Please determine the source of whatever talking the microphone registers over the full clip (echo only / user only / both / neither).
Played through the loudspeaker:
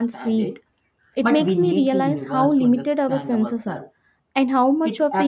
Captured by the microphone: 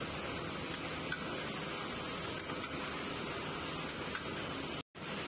neither